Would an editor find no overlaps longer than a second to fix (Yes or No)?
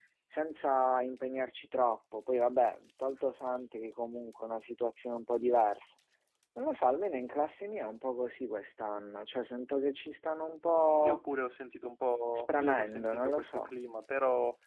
No